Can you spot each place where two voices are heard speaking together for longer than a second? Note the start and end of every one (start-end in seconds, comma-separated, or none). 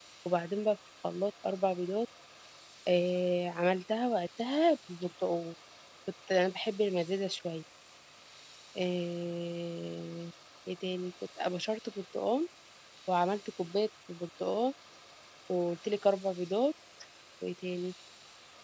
none